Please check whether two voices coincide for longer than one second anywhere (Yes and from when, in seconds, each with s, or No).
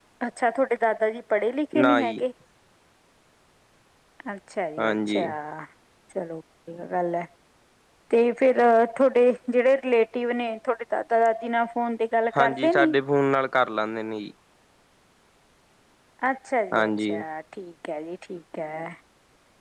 No